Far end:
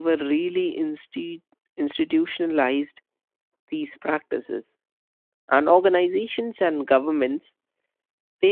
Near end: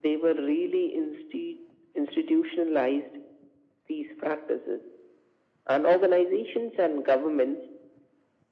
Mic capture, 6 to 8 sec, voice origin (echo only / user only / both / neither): echo only